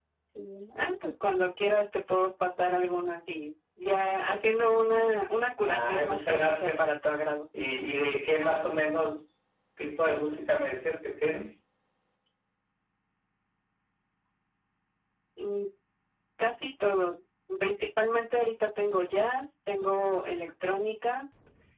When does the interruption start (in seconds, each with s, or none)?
5.7 s